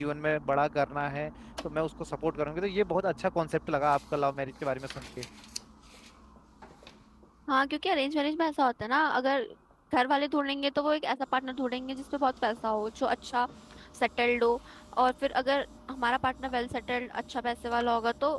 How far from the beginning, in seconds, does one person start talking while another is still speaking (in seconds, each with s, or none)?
none